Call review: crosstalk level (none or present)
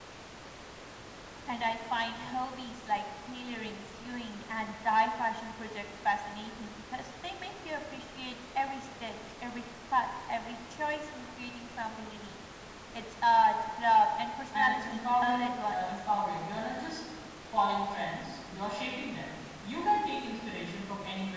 present